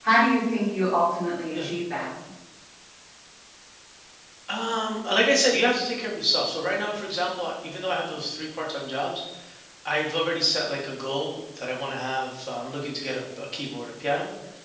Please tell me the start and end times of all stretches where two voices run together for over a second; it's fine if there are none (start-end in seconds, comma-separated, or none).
none